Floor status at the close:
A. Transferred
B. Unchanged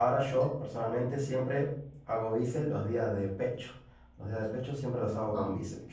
B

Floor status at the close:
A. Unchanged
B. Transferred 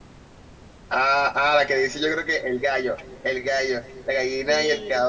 A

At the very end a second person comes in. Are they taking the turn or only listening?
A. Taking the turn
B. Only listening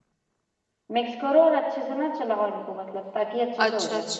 A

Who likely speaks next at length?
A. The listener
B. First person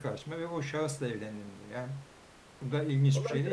A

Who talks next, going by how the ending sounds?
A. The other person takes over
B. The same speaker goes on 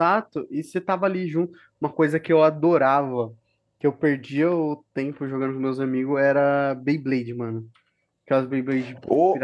A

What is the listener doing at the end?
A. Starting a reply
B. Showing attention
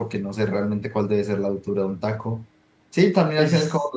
B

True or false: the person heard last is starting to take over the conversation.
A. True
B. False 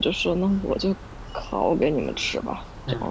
A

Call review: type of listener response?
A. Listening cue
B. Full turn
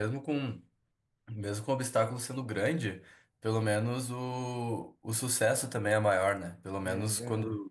A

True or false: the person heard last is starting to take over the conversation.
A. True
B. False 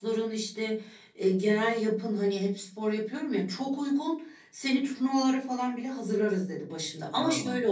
B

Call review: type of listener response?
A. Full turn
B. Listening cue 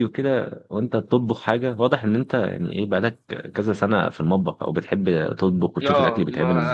A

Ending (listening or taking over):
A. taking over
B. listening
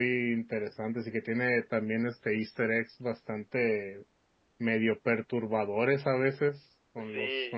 A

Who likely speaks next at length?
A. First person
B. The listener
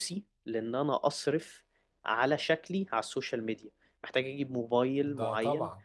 A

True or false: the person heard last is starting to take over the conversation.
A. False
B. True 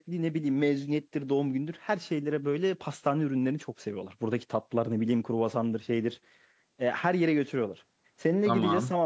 A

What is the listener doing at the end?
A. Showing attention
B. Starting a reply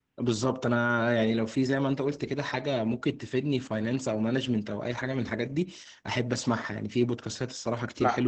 A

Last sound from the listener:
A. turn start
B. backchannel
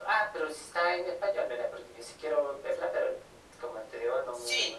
A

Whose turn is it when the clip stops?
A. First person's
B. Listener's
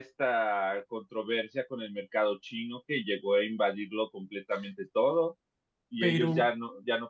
A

